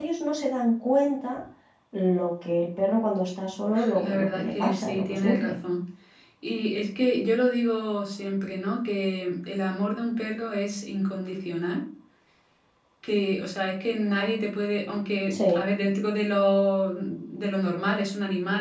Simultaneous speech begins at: 4 s

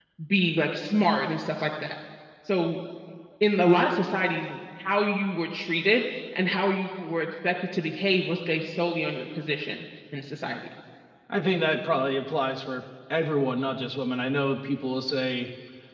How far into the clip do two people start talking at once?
none

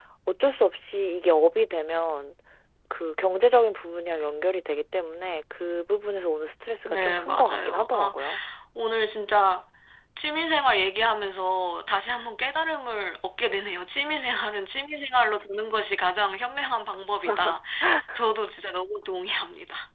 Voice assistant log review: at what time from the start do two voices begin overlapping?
7 s

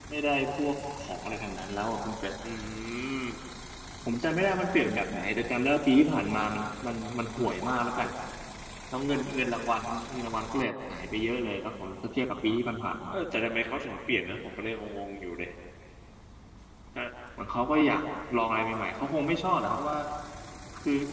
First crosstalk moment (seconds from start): none

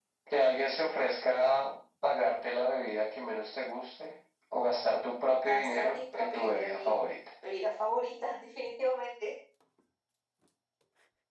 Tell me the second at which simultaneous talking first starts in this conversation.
5 s

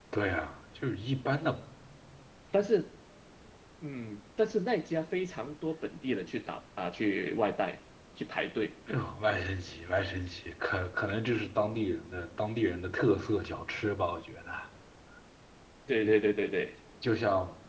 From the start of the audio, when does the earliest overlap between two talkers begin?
none

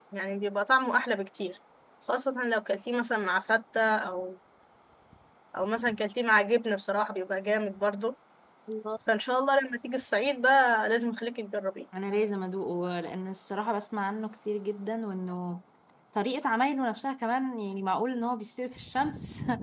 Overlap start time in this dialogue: none

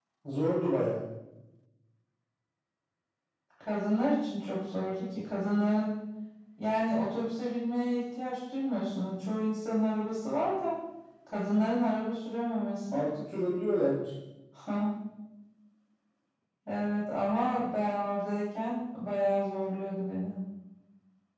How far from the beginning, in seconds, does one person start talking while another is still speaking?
none

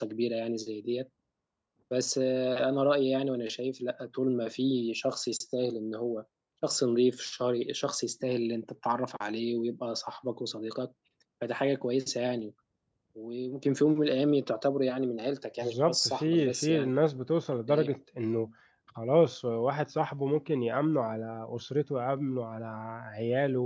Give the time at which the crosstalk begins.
16 s

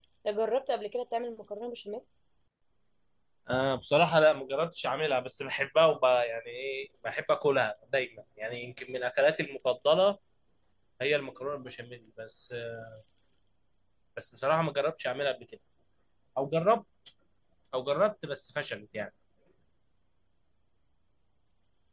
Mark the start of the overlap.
none

